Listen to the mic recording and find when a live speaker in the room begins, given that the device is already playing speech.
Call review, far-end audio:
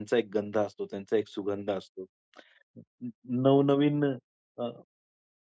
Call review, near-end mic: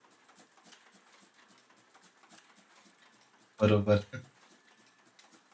3.6 s

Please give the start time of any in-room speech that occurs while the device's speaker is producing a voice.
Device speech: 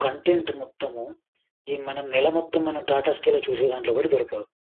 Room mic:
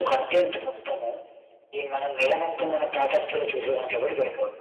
none

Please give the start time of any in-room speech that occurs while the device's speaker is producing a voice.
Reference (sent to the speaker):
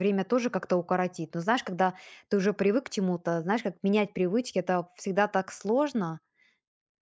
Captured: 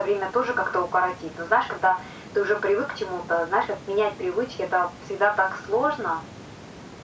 none

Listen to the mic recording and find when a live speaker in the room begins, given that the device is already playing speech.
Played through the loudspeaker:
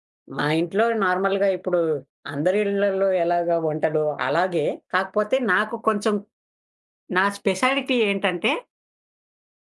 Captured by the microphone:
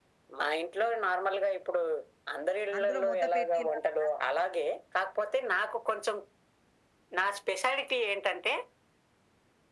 2.8 s

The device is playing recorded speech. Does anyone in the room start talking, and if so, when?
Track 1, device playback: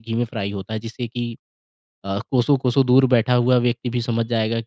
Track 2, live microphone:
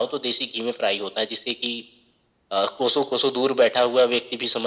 none

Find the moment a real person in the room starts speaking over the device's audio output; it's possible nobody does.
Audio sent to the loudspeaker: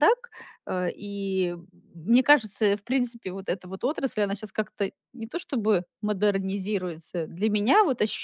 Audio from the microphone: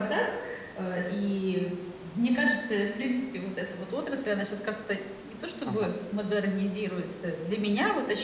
5.6 s

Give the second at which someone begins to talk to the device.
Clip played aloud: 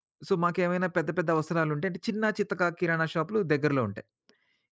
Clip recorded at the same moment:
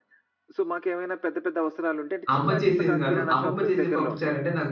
2.4 s

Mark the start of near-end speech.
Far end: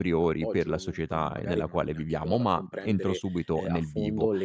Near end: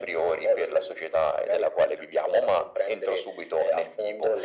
none

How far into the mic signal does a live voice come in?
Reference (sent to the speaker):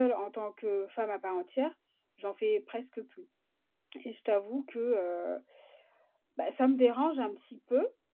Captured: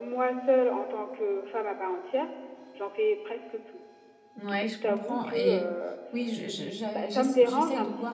4.3 s

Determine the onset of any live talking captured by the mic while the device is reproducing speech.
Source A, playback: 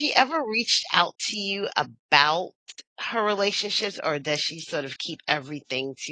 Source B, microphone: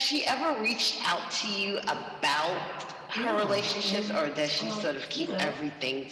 3.1 s

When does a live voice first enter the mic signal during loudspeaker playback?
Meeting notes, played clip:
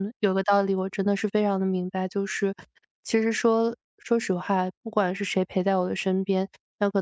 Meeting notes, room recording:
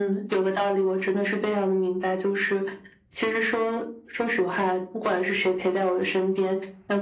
none

